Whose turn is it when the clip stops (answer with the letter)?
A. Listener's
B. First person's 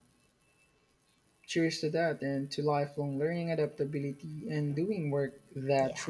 A